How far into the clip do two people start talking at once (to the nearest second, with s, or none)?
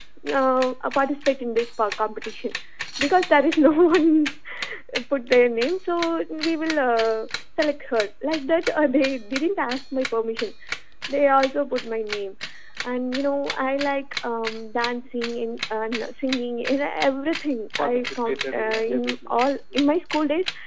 18 s